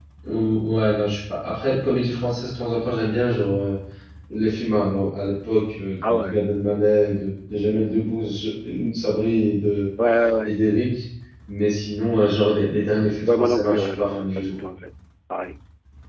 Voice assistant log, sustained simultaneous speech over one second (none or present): present